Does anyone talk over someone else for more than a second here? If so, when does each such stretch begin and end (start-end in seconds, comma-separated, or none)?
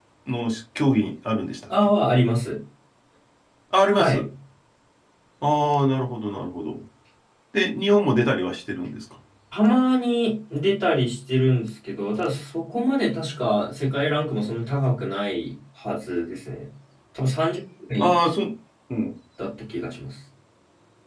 none